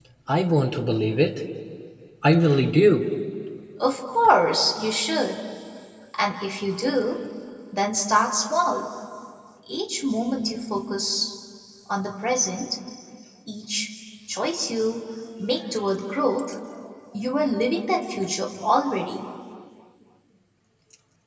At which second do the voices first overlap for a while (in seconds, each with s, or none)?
none